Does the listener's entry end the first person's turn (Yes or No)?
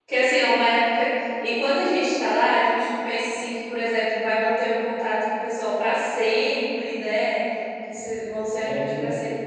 No